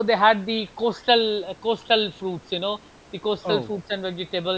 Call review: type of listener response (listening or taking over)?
listening